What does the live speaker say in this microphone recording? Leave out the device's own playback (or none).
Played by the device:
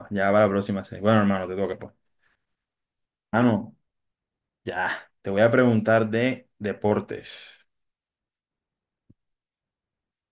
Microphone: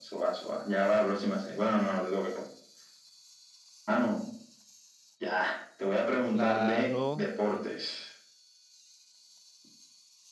Claro,